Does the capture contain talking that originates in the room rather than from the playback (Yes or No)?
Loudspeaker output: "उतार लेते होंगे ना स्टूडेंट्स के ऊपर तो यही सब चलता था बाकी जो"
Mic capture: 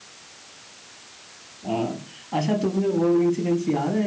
Yes